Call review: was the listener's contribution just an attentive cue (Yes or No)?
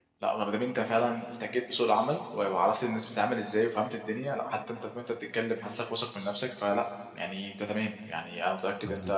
Yes